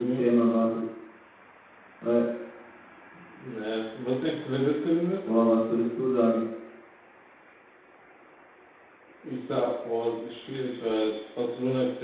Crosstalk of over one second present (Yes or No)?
No